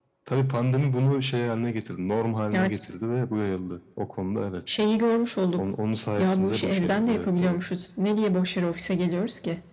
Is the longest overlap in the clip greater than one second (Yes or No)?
Yes